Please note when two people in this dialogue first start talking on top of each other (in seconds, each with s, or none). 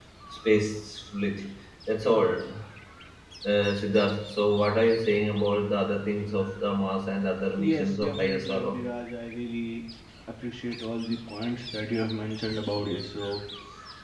7.6 s